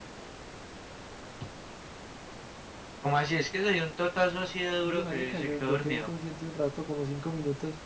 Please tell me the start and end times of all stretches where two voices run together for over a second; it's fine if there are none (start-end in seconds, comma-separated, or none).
4.8-6.1